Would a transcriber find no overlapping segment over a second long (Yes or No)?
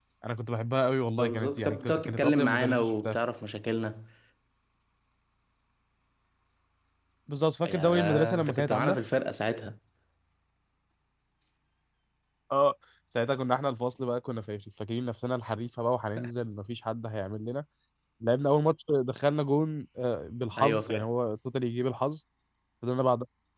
No